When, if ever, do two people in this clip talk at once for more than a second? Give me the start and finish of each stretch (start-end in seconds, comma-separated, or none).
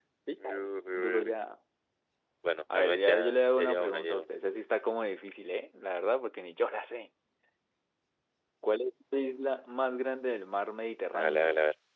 2.7-4.3